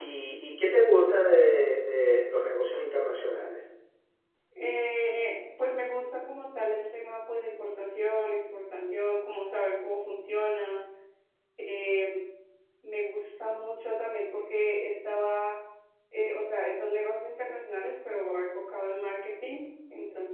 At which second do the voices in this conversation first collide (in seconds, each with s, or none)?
none